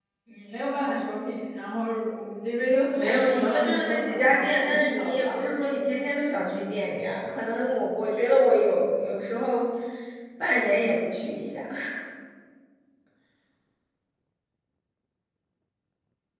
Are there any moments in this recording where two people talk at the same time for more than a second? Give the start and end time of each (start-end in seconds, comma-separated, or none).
2.9-5.5